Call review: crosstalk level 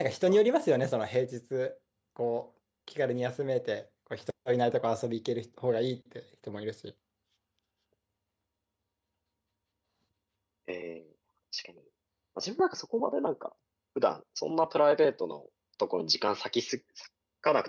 none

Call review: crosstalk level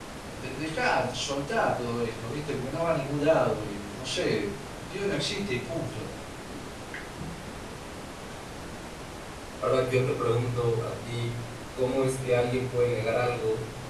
none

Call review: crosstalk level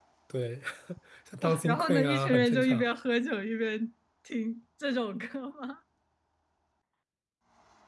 present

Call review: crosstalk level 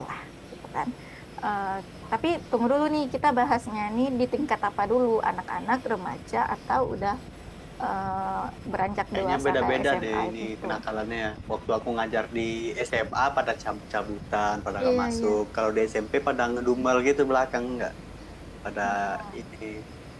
present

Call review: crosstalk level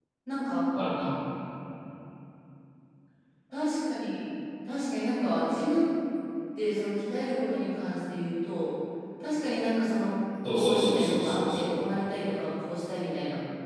present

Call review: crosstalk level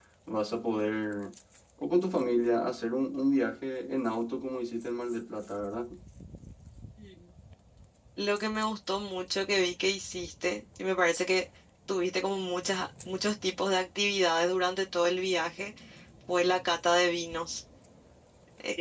none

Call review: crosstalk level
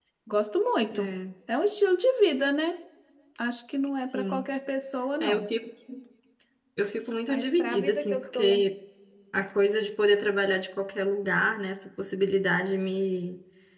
present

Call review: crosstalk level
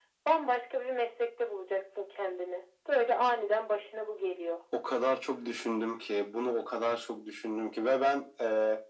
none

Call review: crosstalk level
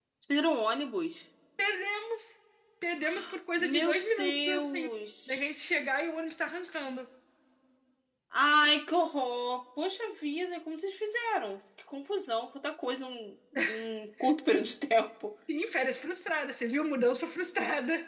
present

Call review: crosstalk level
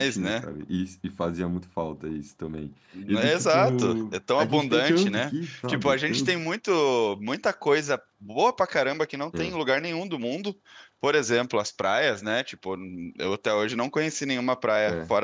present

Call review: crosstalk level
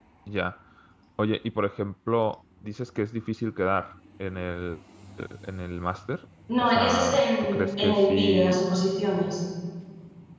present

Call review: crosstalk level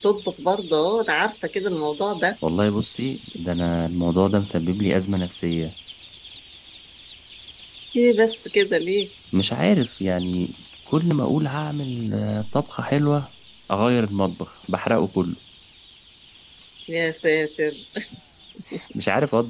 none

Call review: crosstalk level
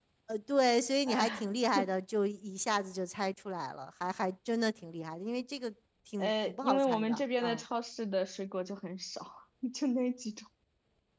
present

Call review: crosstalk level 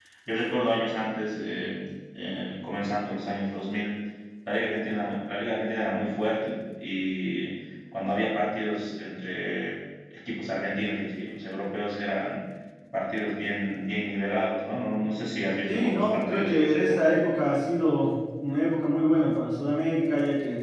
present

